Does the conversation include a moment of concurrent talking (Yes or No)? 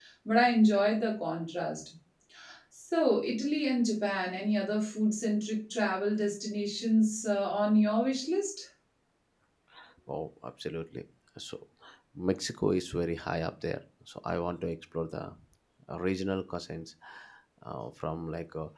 No